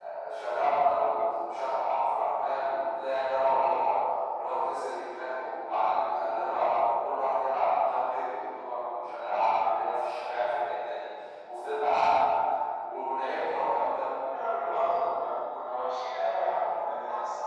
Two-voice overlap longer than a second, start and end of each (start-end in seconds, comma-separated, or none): none